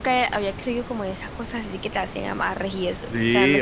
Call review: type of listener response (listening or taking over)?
taking over